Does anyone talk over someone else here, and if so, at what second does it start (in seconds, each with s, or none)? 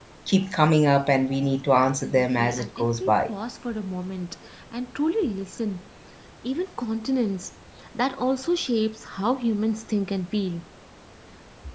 2.0 s